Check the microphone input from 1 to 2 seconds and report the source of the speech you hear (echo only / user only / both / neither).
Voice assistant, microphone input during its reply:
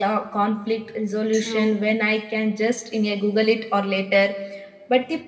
both